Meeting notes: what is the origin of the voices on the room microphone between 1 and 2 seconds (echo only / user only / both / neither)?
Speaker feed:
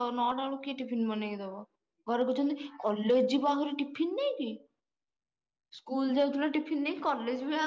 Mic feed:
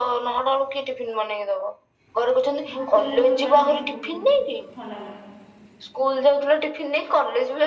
echo only